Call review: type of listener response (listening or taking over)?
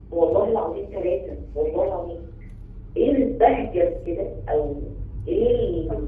listening